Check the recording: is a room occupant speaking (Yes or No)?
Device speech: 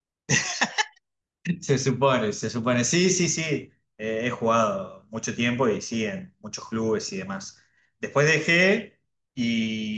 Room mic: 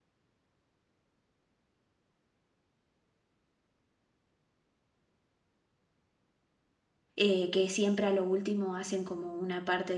Yes